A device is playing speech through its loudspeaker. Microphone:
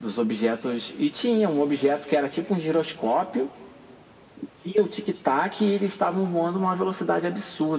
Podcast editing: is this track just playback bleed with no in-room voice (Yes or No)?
Yes